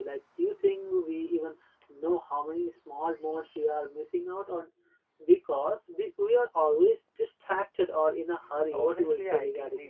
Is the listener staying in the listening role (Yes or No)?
No